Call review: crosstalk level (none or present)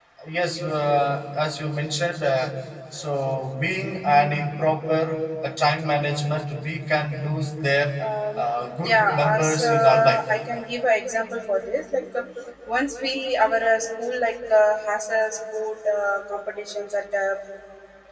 present